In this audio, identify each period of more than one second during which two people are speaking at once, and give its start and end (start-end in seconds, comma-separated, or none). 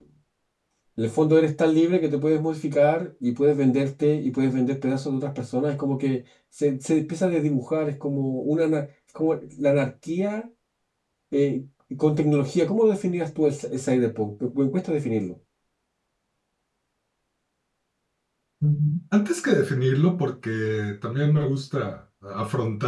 none